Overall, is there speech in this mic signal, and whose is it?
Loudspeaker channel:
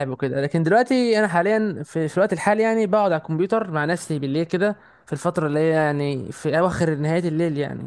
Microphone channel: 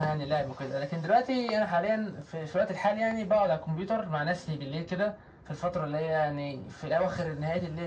echo only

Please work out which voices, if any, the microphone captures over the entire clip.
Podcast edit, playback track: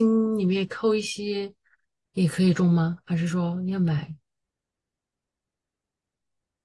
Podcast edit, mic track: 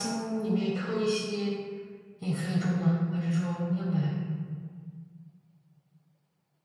echo only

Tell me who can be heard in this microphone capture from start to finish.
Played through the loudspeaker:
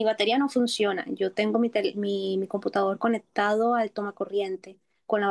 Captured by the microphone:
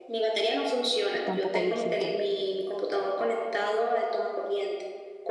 both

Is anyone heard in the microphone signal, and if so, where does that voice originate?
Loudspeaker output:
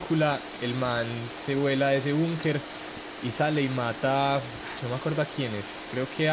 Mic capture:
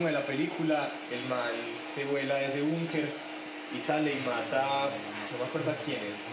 both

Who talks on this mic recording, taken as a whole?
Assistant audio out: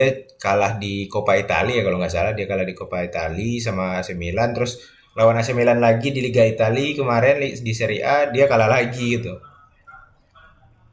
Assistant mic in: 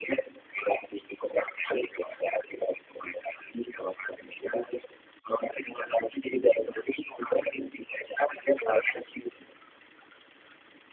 echo only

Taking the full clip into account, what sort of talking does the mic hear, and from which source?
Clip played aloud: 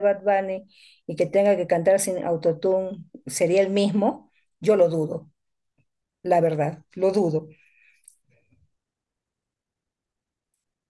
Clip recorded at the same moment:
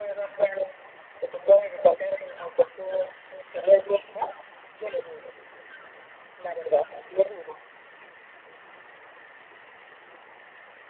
echo only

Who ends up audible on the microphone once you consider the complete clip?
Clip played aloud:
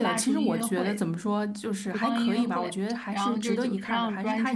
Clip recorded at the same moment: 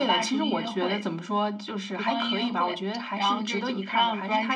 echo only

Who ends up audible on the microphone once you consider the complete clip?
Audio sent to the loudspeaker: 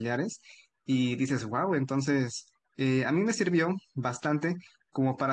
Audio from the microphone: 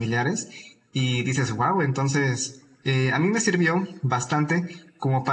echo only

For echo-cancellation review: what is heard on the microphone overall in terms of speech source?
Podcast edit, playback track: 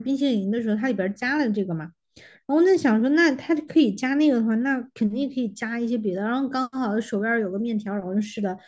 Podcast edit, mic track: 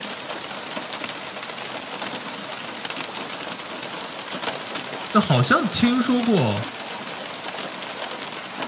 user only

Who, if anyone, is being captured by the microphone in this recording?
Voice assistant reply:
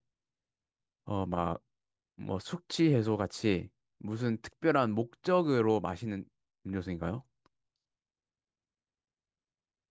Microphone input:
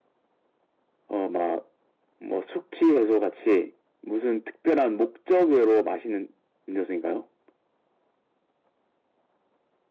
echo only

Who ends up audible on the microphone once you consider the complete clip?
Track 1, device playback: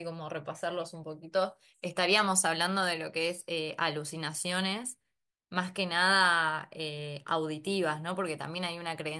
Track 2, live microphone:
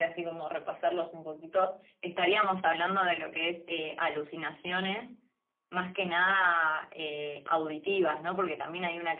echo only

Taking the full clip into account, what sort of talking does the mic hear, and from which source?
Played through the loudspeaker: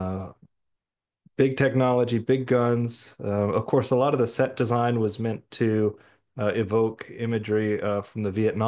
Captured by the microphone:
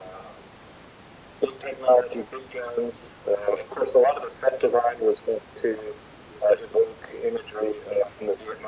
echo only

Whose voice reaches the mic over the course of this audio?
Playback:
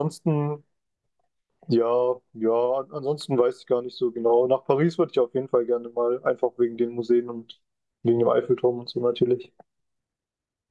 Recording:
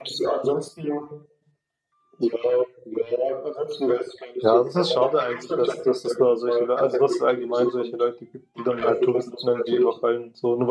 both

